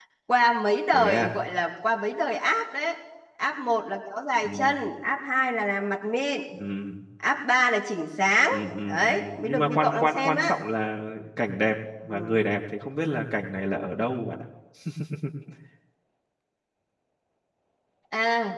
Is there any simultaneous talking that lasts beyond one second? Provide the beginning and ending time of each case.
8.5-10.6

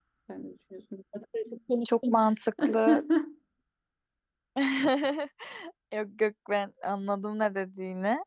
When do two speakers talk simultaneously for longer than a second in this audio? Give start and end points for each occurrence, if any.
none

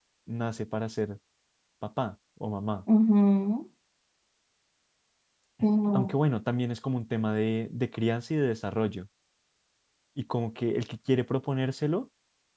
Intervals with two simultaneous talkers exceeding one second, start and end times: none

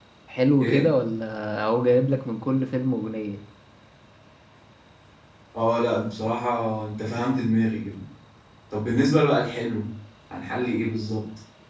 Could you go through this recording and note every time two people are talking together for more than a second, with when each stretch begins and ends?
none

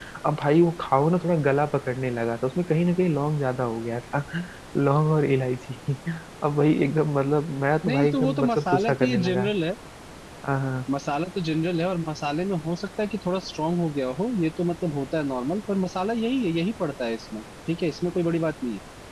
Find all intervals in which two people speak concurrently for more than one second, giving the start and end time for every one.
7.9-9.5

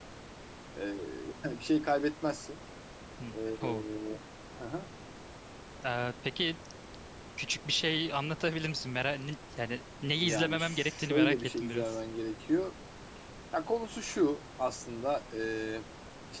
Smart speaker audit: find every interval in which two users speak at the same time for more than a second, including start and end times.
10.1-12.0

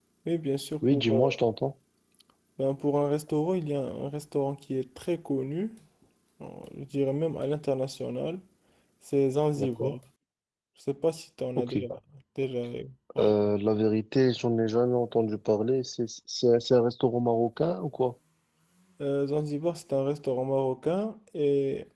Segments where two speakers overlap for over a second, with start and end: none

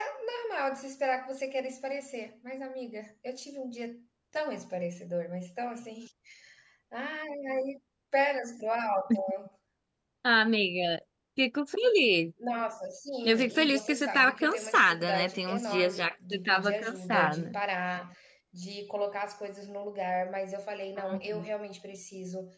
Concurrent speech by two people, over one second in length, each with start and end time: 13.2-17.6

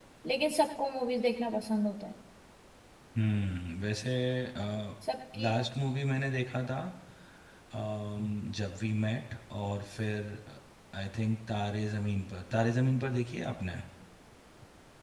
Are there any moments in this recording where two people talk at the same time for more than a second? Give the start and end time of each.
none

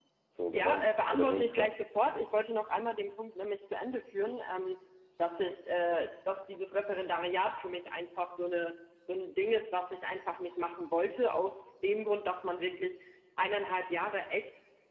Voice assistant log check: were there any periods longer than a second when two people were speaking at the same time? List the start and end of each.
0.5-1.8

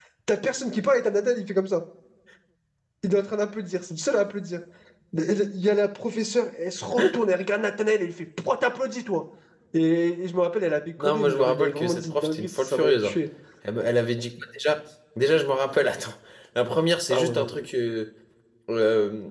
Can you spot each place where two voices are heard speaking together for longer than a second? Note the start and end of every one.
11.0-13.1

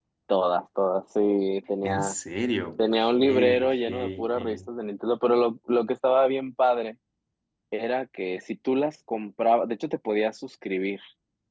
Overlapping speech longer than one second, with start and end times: 2.9-4.6

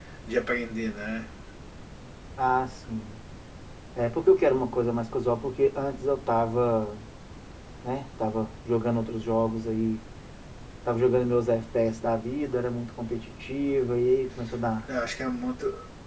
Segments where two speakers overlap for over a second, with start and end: none

